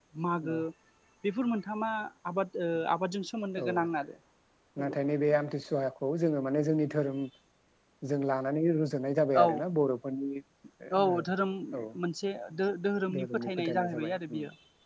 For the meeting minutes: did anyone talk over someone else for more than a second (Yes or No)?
Yes